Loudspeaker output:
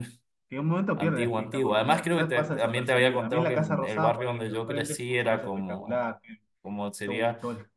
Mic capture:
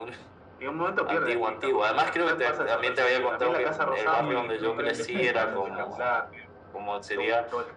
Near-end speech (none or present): present